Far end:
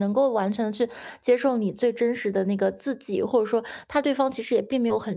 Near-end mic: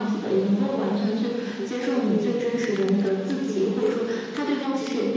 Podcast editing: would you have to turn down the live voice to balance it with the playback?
No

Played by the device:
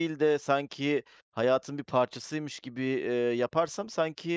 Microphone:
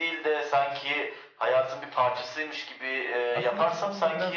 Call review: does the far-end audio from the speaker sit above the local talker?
Yes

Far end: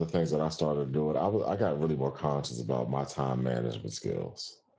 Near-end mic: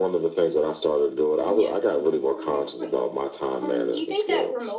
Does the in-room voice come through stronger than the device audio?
No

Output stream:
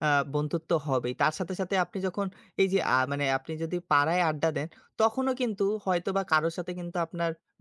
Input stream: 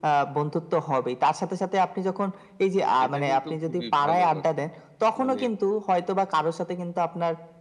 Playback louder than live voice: Yes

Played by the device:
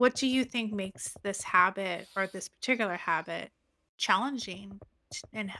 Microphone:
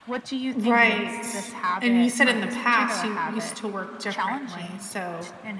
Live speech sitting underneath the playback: No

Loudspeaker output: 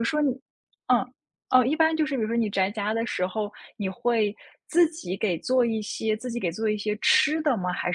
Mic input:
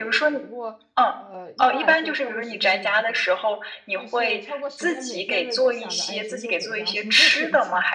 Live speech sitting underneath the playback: Yes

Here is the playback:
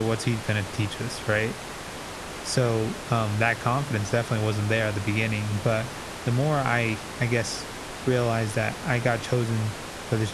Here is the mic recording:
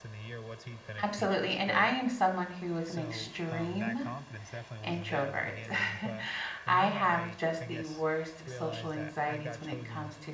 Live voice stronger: Yes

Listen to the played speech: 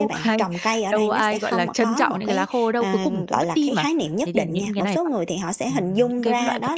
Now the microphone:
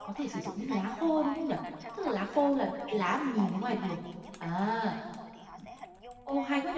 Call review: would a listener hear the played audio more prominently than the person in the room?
No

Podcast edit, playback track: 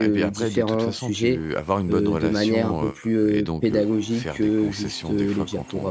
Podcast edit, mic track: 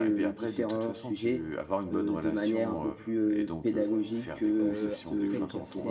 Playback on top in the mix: Yes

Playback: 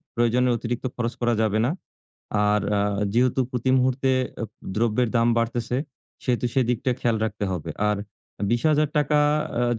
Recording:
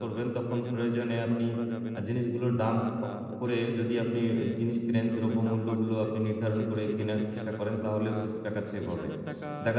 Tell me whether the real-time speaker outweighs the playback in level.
Yes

